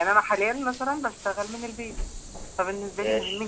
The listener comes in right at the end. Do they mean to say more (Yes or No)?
No